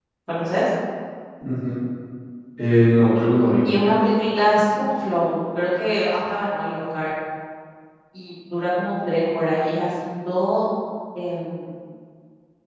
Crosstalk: none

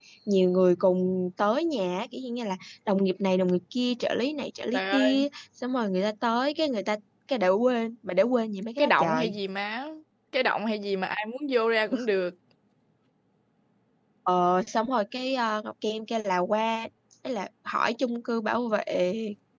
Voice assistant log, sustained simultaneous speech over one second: none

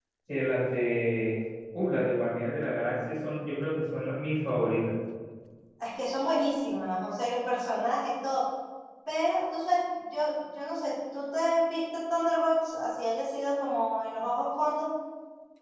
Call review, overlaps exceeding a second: none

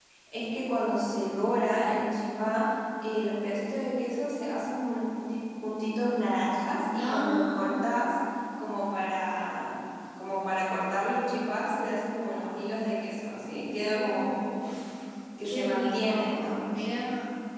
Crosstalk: present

